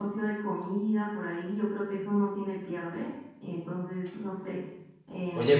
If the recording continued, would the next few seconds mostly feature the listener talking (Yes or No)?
Yes